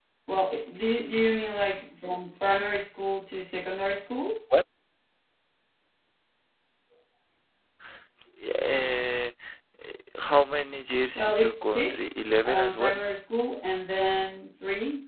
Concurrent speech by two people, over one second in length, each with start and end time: 11.2-13.0

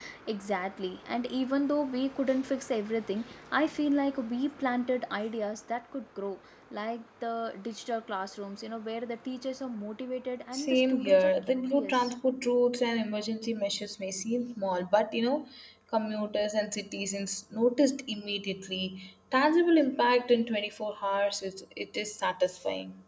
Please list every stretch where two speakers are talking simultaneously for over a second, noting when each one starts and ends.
10.5-12.1

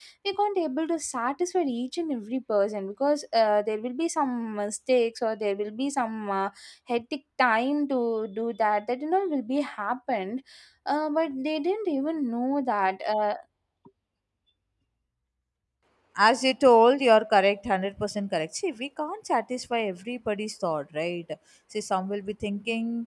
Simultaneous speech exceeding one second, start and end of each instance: none

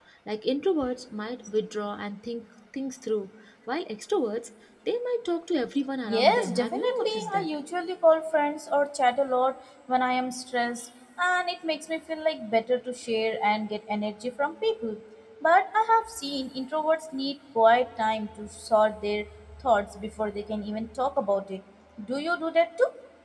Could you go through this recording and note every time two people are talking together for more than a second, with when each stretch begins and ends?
6.0-7.5

